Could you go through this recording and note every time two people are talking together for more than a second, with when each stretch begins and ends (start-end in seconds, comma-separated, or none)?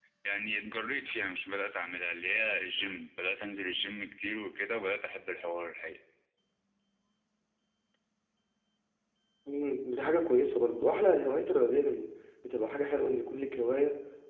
none